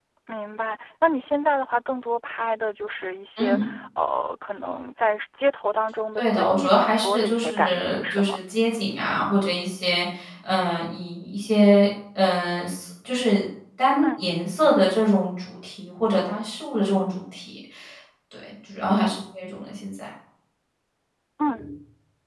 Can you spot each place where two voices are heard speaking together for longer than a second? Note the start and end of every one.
6.2-8.4

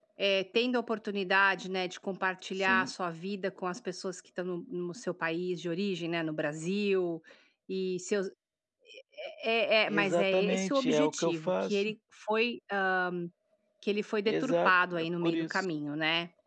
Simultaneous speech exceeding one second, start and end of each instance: 9.9-11.9, 14.2-15.7

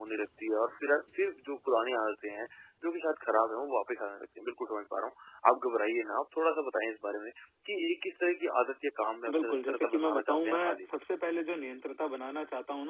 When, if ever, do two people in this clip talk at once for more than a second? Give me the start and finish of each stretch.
9.3-10.9

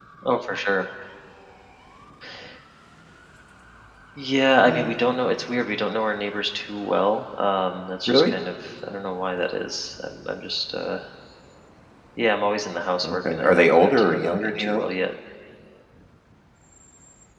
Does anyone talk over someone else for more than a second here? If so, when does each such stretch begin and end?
13.0-14.8

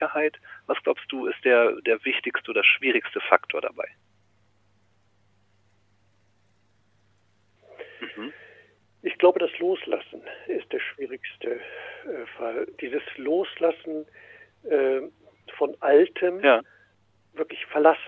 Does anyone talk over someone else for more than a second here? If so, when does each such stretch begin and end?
none

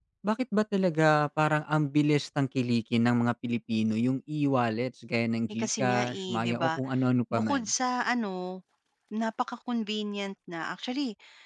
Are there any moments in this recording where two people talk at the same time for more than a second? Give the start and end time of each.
5.5-6.8

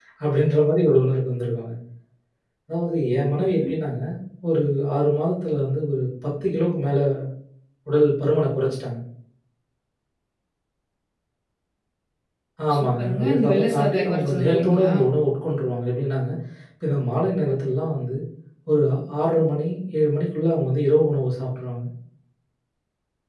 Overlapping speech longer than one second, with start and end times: 12.7-14.9

